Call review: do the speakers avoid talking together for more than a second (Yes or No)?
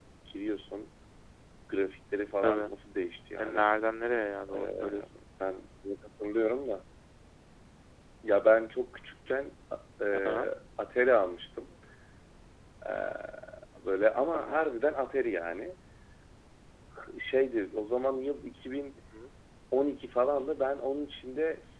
Yes